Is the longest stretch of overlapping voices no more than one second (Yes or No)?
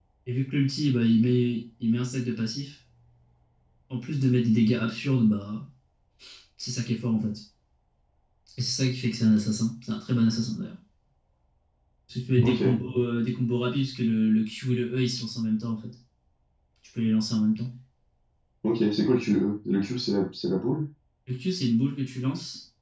Yes